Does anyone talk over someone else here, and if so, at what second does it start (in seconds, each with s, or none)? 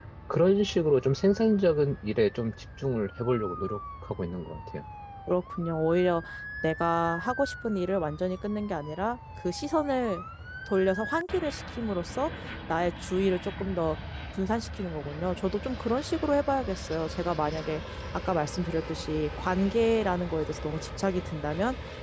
none